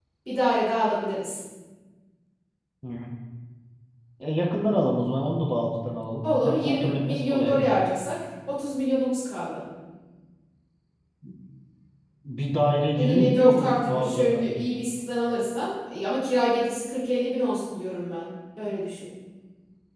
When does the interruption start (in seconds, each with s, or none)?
6.4 s